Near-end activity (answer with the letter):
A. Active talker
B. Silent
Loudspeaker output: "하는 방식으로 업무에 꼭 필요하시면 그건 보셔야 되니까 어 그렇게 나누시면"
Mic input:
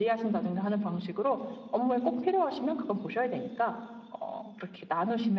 B